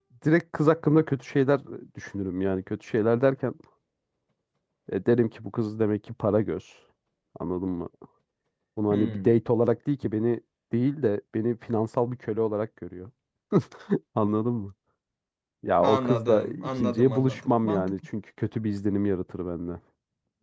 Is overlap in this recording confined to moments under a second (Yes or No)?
No